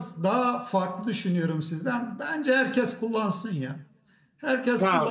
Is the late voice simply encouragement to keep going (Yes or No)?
Yes